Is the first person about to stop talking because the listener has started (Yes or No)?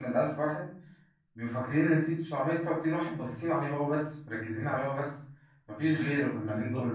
No